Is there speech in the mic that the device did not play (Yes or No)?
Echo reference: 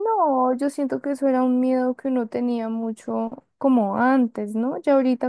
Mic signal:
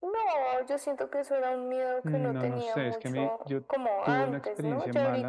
Yes